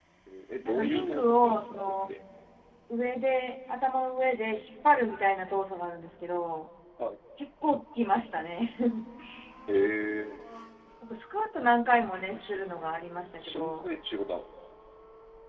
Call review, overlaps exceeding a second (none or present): present